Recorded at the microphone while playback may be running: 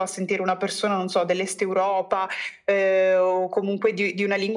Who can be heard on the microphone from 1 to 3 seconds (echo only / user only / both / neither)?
echo only